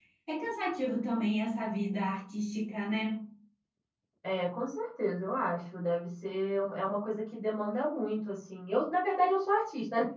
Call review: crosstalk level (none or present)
none